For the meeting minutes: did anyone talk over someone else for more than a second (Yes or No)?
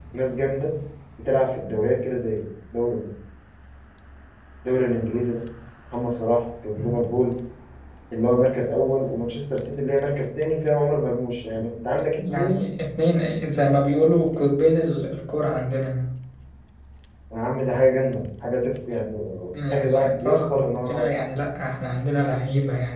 Yes